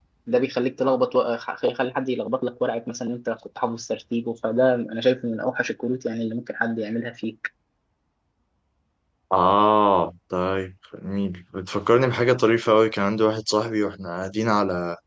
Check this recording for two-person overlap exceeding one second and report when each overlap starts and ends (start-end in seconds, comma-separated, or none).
none